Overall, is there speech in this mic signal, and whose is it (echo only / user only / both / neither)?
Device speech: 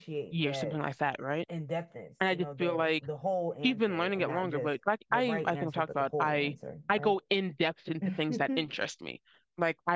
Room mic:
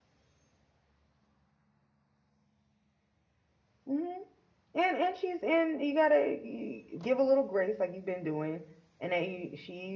user only